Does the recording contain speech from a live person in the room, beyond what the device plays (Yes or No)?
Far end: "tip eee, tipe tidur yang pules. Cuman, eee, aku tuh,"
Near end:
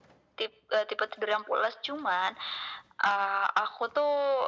No